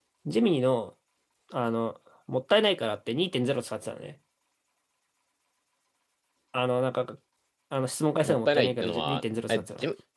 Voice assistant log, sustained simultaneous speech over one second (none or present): present